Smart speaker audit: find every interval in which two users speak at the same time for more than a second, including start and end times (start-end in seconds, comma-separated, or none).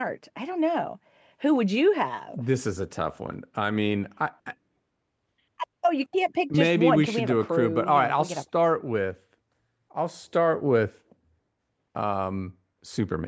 6.6-8.4